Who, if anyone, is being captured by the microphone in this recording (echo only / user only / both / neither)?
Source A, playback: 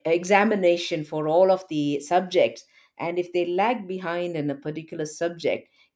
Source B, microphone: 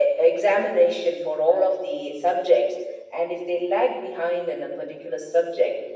echo only